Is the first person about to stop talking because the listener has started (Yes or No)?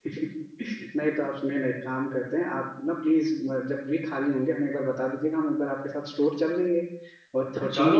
Yes